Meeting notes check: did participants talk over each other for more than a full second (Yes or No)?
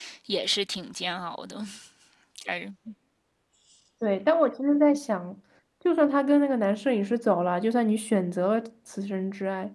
No